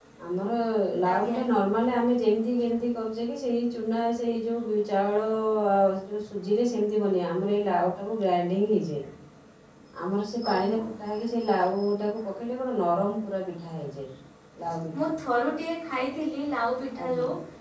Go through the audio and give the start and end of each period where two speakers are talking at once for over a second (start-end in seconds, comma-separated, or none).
none